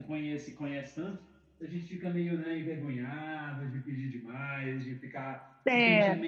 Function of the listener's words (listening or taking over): listening